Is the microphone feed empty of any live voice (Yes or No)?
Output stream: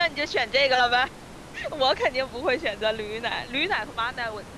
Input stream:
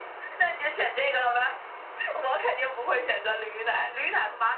Yes